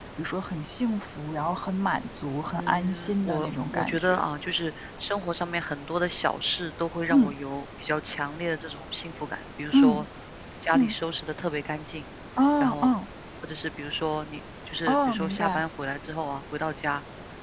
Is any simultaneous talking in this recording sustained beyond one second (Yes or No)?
Yes